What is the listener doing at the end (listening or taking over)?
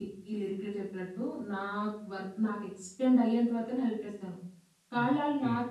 listening